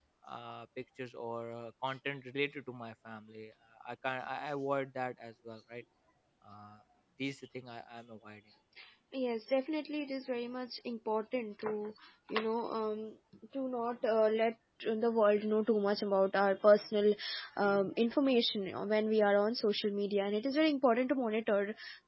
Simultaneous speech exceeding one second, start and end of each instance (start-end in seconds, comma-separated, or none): none